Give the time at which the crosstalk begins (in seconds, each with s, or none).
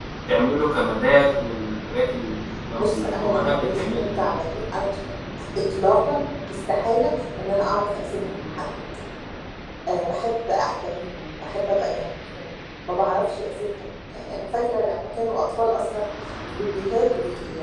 2.8 s